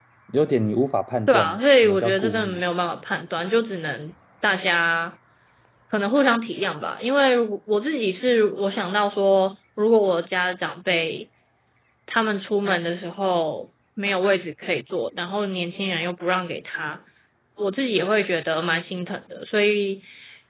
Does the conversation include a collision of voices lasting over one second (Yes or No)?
Yes